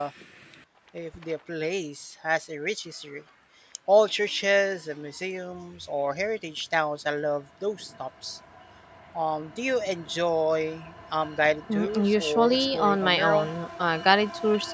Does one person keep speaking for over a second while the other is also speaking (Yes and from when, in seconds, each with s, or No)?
Yes, from 11.7 s